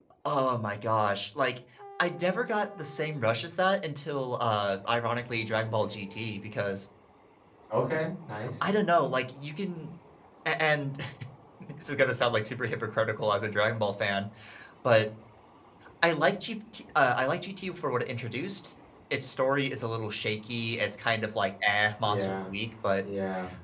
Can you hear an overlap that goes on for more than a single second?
No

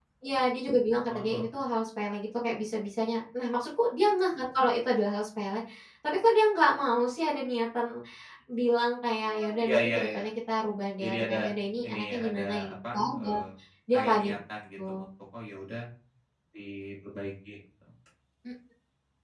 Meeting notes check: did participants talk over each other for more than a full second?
Yes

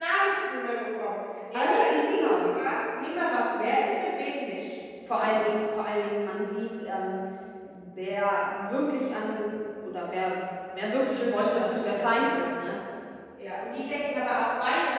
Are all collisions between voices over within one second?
No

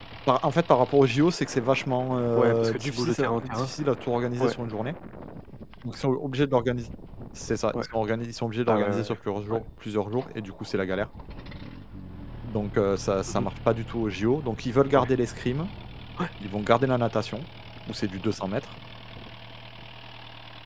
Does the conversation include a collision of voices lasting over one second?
Yes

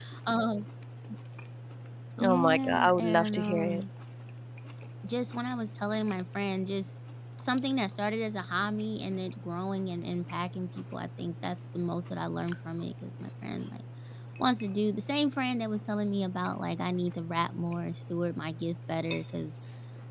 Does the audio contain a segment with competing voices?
Yes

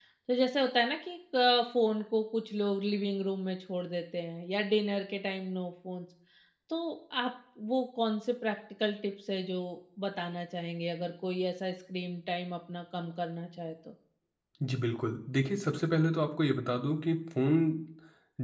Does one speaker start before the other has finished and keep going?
No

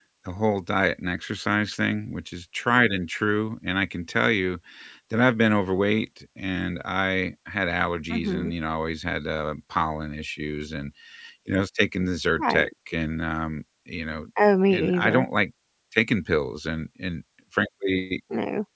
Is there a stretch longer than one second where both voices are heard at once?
No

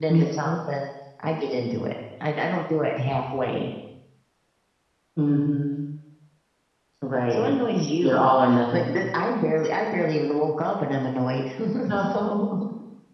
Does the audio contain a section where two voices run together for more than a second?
No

